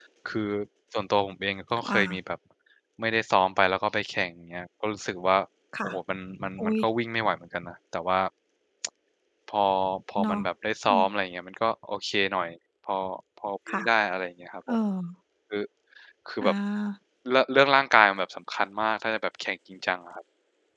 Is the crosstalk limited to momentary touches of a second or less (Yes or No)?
Yes